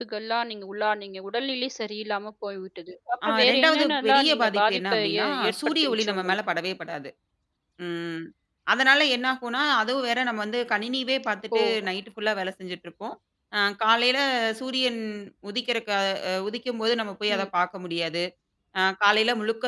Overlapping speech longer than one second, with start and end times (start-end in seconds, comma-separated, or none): 3.3-6.4